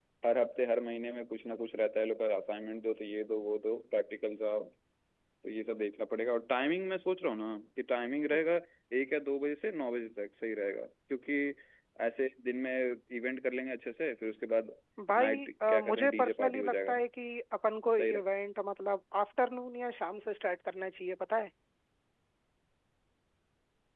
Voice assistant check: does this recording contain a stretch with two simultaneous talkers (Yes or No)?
Yes